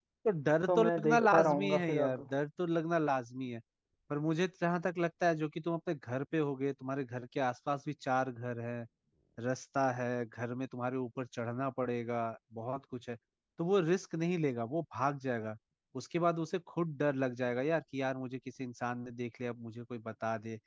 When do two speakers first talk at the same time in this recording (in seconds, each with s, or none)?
0.7 s